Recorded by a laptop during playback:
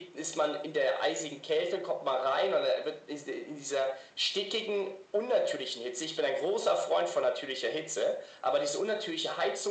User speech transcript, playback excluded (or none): none